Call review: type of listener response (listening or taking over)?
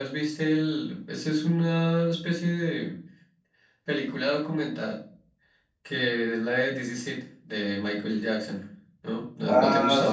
taking over